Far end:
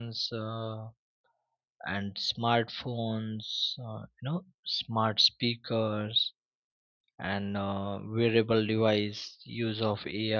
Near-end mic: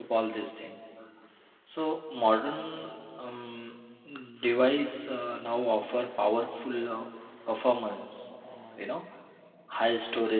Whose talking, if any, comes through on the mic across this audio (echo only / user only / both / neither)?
user only